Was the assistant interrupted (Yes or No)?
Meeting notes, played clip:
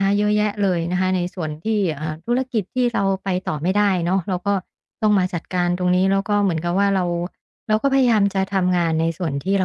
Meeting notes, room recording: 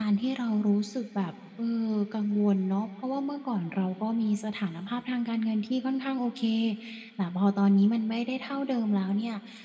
Yes